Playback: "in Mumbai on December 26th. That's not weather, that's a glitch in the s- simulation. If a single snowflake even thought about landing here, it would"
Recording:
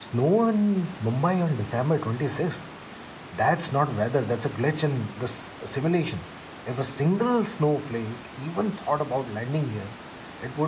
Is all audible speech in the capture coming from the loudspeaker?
Yes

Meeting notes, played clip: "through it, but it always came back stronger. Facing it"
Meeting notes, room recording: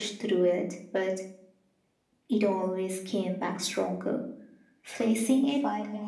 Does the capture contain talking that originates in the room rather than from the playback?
Yes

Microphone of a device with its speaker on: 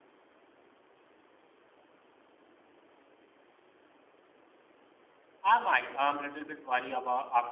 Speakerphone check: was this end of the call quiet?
No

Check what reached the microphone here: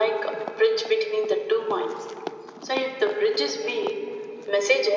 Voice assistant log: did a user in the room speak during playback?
No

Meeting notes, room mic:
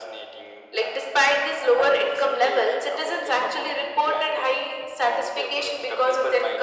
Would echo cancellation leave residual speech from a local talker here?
No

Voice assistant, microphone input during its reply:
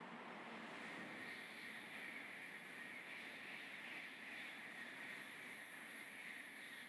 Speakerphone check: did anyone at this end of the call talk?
No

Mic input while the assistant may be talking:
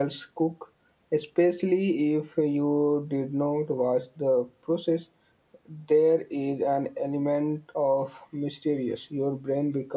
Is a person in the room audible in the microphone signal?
Yes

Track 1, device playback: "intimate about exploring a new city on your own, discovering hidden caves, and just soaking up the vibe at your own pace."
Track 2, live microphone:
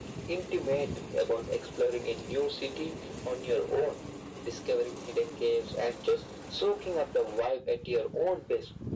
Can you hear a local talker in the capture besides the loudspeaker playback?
No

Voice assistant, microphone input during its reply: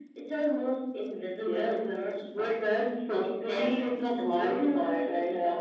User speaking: No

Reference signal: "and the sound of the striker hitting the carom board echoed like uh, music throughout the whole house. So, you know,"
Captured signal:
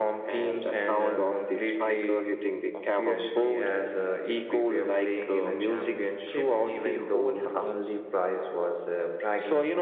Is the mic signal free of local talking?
No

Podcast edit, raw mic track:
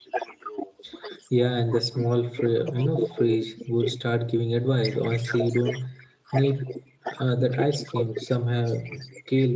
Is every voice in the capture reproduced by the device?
No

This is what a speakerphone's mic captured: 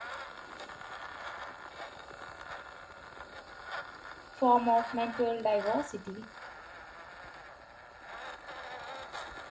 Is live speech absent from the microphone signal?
No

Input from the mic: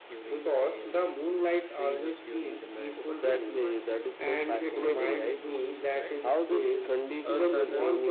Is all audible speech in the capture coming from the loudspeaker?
No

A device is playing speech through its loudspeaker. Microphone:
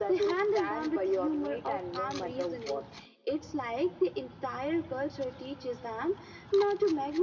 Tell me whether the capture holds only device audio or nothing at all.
Yes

